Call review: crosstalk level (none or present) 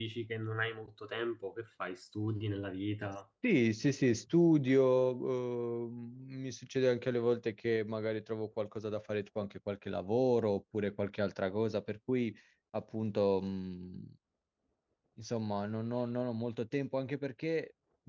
none